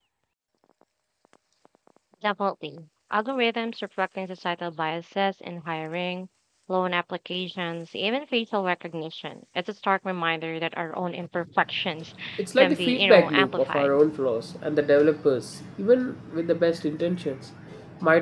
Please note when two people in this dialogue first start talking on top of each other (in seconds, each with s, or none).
12.6 s